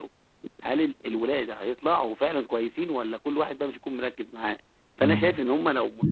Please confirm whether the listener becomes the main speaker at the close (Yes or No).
No